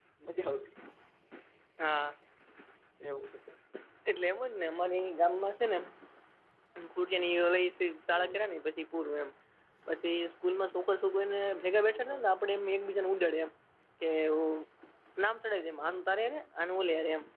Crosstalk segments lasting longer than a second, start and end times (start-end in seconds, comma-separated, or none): none